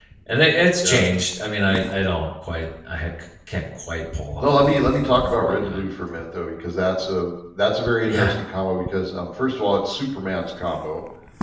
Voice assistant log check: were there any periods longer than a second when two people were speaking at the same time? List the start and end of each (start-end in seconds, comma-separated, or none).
4.4-5.8